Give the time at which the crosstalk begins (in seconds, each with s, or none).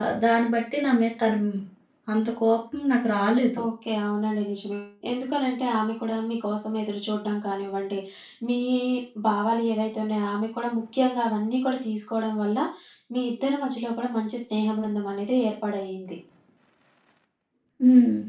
none